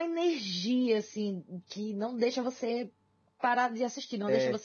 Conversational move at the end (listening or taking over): listening